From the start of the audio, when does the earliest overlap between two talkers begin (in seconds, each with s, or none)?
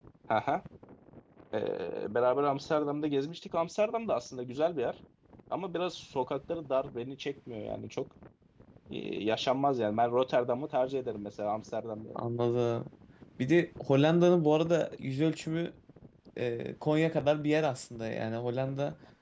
none